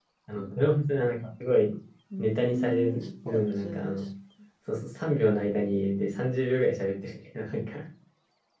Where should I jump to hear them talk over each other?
2.2 s

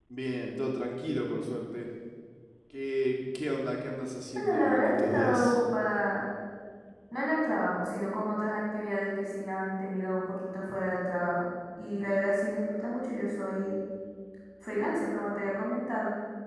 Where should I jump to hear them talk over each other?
4.3 s

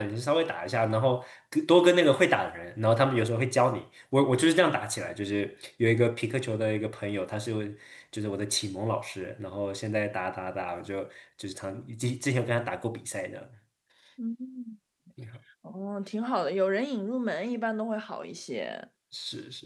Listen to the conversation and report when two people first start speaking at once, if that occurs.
none

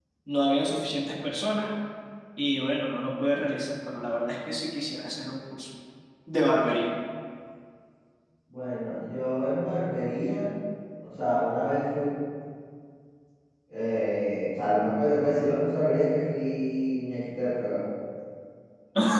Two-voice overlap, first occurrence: none

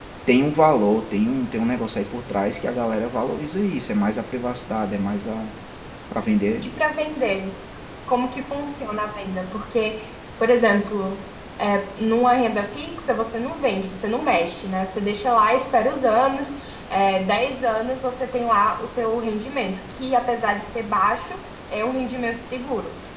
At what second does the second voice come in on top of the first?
none

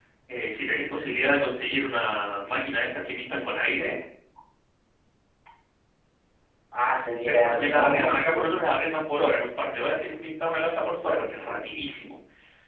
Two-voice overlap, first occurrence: 7.3 s

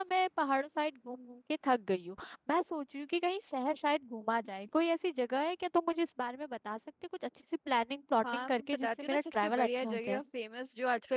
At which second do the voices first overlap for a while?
8.2 s

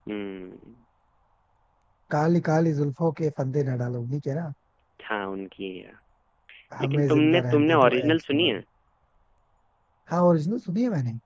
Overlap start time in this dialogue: 6.8 s

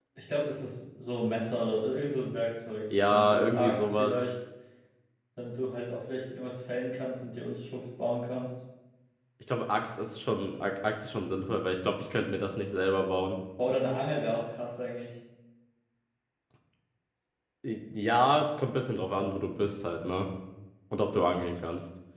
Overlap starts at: 2.9 s

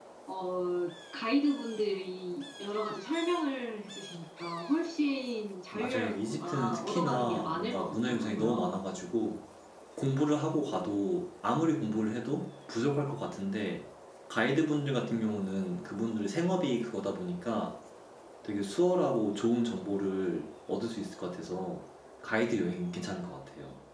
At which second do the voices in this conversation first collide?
5.7 s

